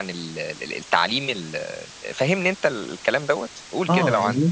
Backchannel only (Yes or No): No